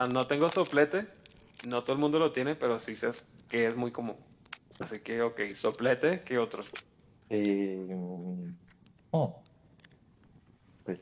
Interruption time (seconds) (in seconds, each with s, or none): none